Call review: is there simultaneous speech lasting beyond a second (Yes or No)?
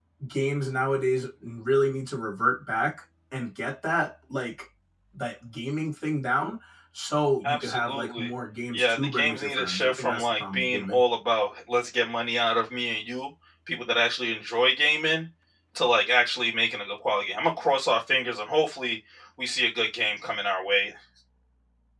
Yes